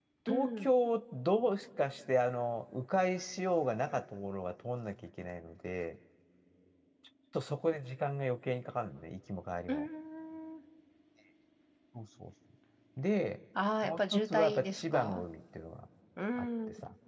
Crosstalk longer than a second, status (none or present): present